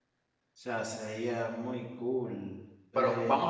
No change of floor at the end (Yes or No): No